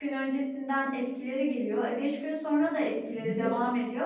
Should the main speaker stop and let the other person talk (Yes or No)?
No